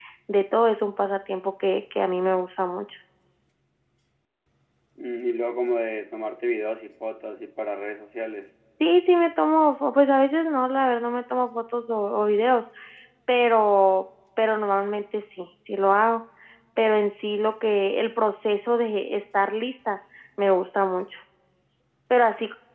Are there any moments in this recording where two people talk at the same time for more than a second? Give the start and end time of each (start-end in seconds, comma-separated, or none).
none